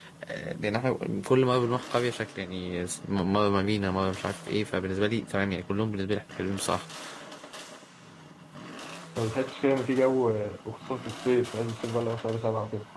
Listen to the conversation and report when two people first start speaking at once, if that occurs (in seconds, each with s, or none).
none